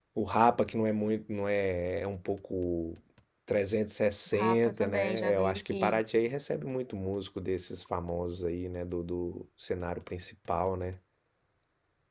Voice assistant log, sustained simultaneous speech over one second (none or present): present